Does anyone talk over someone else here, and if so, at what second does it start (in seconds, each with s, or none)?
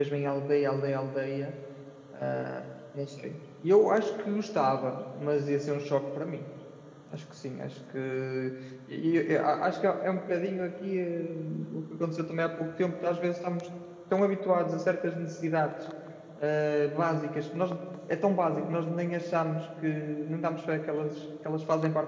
none